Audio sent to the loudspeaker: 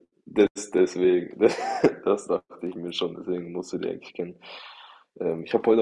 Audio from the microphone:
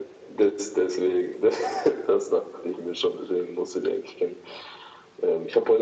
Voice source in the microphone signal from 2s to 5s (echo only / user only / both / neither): echo only